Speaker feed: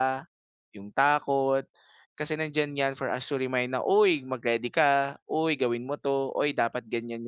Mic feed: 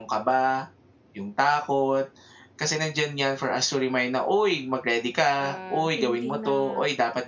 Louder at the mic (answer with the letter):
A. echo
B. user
A